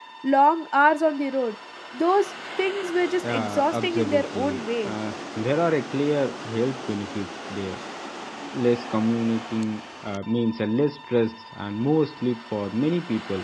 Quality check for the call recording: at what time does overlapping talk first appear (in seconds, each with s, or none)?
3.2 s